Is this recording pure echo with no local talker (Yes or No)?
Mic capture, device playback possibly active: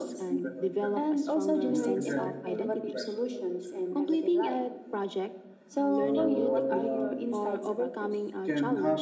No